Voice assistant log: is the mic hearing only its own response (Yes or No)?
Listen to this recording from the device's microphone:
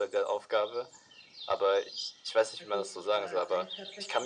No